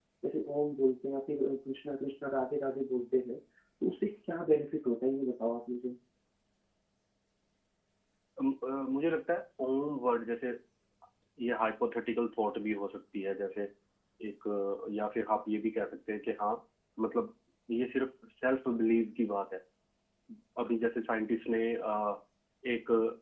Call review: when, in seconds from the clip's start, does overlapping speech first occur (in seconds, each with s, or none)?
none